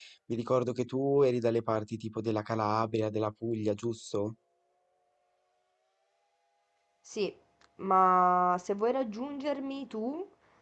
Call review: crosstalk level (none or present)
none